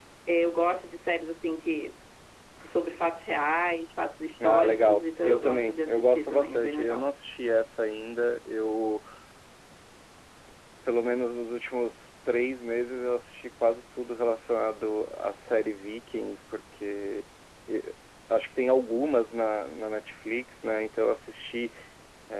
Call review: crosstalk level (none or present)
present